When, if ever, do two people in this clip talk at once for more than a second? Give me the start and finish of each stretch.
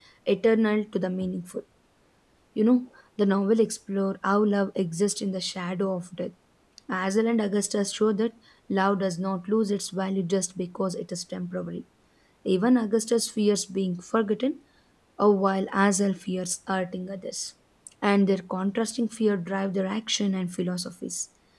none

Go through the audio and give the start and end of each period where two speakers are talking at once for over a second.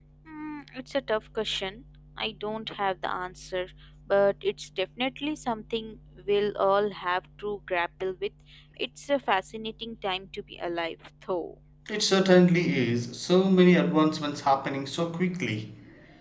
none

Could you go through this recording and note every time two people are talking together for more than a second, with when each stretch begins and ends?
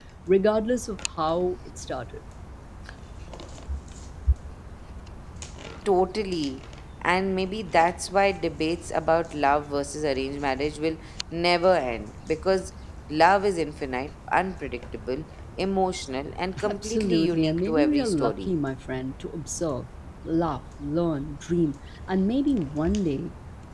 16.7-18.5

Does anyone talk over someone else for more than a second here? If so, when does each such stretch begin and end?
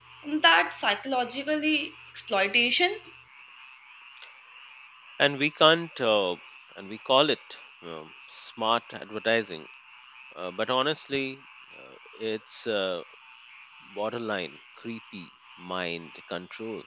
none

